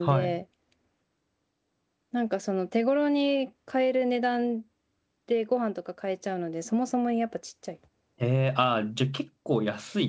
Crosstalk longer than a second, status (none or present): none